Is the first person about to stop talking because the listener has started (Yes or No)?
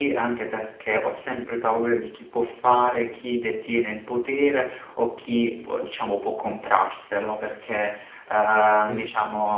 No